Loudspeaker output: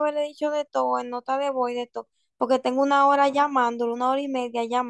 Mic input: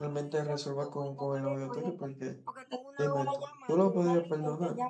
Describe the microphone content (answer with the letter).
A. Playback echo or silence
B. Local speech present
B